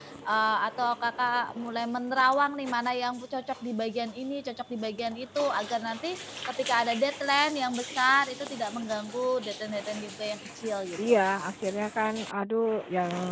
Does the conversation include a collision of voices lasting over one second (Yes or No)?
No